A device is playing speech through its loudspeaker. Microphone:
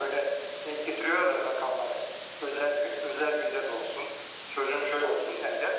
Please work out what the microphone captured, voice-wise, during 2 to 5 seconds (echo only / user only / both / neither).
echo only